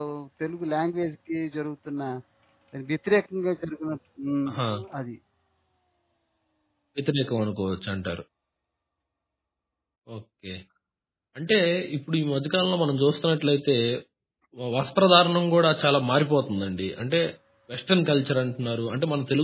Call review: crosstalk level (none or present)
none